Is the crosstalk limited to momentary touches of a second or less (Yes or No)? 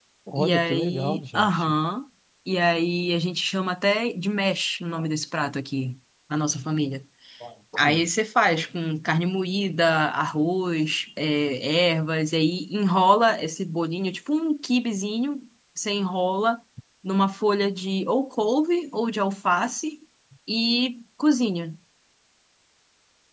No